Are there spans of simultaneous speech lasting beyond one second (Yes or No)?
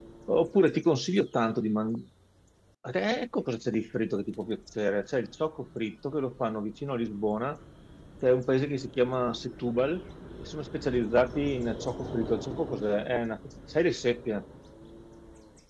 No